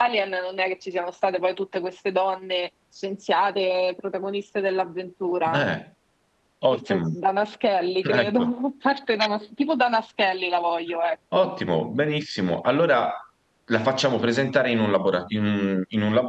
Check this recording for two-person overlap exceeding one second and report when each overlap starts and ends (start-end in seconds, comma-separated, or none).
none